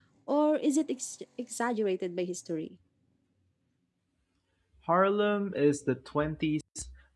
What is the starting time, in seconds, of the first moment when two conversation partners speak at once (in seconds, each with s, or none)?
none